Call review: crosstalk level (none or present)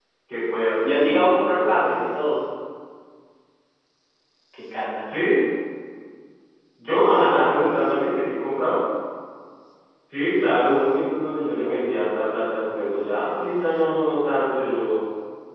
present